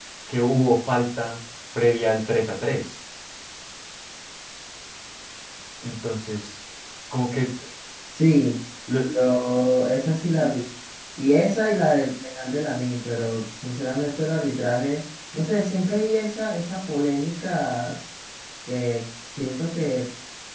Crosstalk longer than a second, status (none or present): none